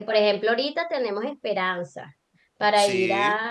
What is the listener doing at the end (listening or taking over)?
listening